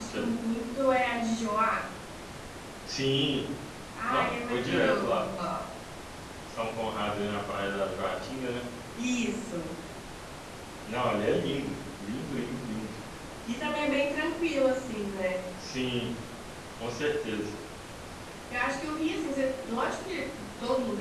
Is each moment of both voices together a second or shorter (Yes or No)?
No